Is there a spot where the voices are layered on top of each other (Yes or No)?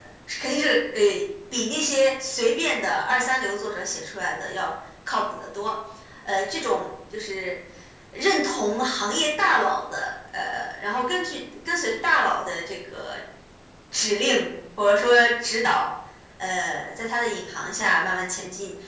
No